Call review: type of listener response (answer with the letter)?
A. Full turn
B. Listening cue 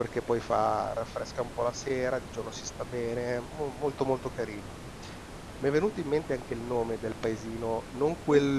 B